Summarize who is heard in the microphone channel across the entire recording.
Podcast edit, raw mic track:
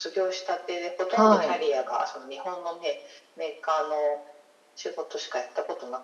both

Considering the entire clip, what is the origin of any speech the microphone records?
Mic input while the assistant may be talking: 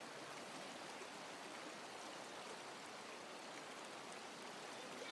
neither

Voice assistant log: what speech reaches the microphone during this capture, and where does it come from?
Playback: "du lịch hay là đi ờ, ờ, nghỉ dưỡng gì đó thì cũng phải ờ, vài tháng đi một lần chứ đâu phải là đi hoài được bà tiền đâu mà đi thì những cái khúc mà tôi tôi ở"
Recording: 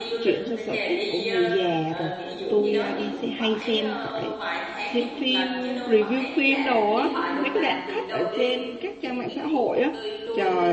both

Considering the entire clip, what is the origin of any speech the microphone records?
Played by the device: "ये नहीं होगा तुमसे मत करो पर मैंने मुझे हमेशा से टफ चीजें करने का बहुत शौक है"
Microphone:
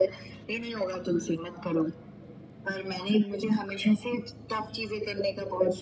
echo only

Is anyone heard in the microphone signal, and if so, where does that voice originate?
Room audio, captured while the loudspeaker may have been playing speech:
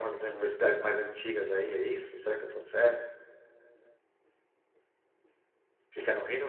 echo only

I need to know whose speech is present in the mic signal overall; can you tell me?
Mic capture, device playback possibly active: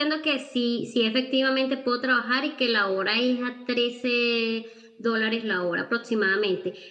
user only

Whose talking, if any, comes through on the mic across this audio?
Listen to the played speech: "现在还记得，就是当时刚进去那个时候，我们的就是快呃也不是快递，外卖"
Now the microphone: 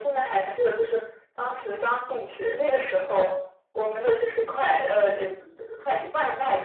echo only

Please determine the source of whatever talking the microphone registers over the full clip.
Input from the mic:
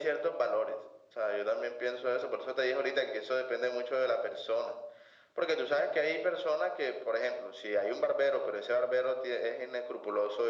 echo only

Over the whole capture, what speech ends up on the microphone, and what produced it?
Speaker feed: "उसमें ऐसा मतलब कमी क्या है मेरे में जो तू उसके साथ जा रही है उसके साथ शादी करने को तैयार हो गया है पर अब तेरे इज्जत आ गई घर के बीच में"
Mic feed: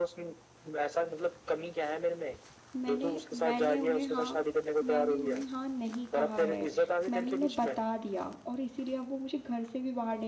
both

